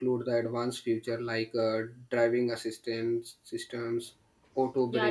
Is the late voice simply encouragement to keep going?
No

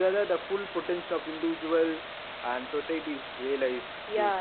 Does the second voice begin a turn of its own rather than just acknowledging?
Yes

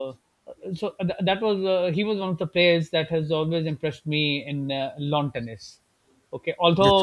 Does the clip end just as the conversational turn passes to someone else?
No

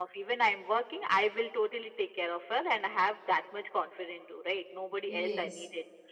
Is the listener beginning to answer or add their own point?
No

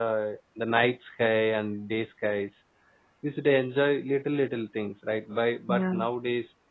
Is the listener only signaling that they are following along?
Yes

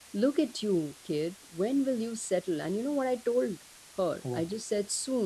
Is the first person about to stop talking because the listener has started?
No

